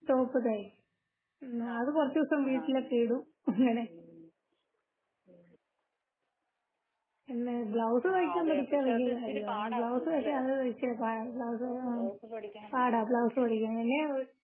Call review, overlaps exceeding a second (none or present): present